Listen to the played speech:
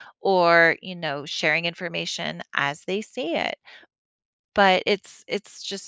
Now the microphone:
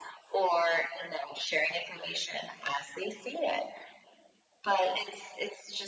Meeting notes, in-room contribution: none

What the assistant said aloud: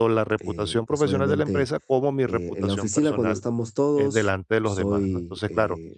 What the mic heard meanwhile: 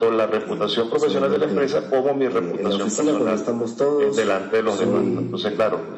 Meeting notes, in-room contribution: present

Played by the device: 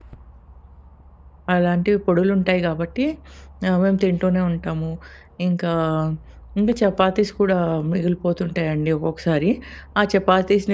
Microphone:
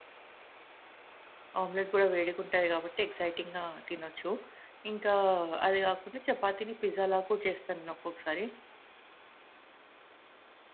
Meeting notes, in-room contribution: present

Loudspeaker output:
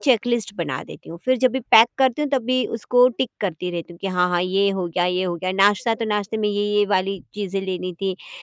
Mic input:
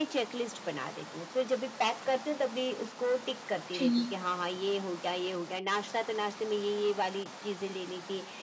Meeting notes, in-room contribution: present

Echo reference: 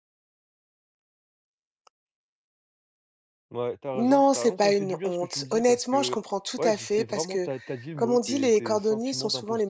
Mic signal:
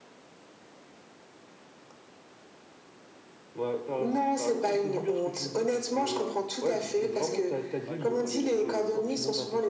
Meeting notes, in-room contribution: present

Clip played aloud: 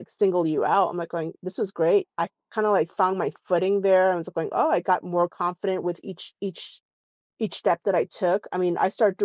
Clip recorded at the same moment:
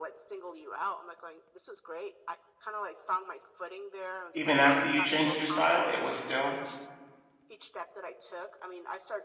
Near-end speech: present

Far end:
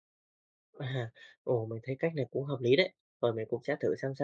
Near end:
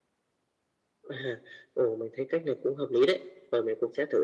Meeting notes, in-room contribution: none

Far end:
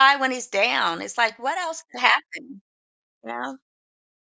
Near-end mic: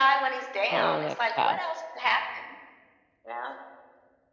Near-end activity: present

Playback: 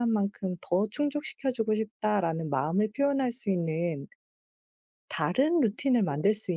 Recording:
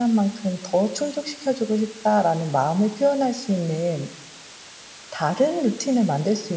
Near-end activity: none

